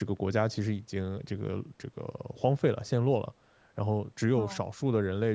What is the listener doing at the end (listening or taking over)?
listening